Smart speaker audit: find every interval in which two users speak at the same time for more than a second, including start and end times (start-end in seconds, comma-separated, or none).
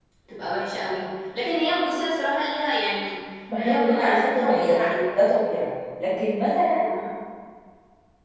3.6-5.3